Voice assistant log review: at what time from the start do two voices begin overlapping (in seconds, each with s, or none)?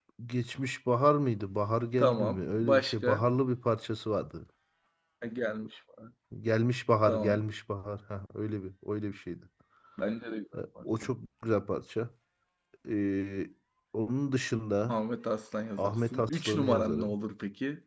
2.0 s